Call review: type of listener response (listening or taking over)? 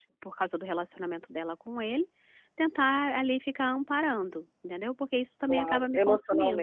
taking over